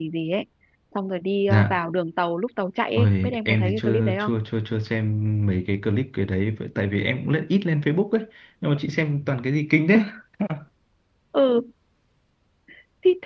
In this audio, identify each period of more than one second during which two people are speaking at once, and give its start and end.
3.0-4.3

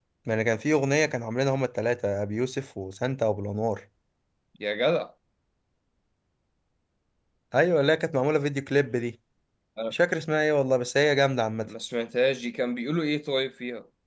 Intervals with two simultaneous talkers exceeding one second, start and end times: none

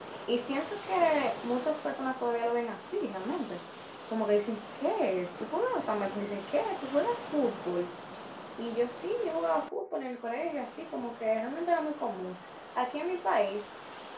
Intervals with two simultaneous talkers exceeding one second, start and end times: none

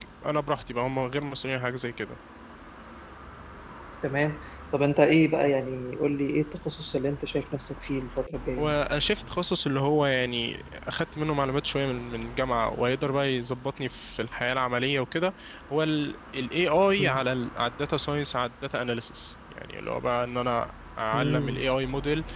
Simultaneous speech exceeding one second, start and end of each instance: none

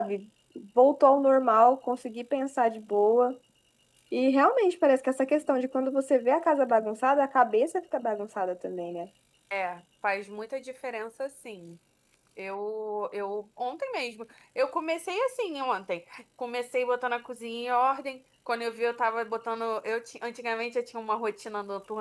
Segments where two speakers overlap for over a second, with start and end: none

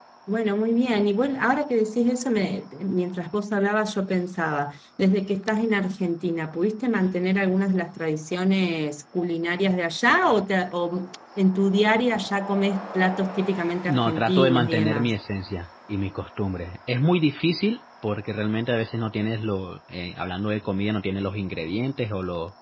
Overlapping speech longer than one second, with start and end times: 13.9-15.1

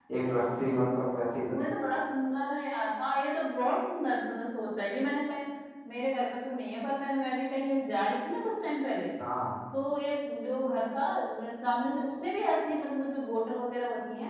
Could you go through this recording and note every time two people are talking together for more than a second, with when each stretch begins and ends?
none

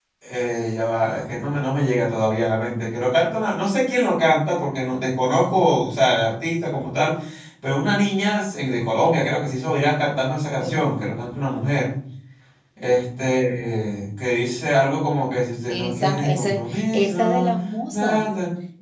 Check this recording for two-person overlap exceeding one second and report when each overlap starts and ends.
15.7-17.5

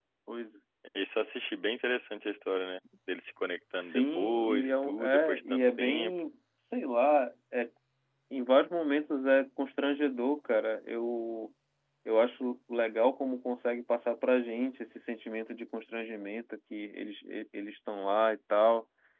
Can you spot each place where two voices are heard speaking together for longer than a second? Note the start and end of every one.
3.8-6.1

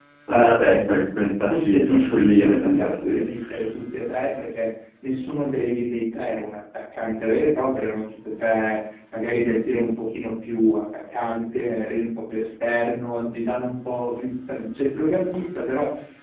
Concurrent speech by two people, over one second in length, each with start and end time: 1.5-3.3

